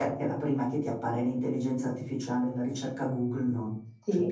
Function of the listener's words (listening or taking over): taking over